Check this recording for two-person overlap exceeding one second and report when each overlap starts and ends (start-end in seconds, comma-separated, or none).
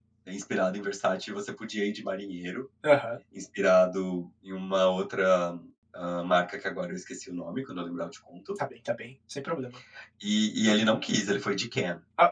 none